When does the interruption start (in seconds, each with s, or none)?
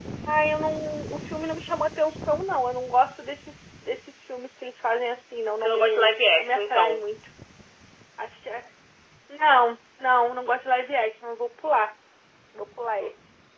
5.6 s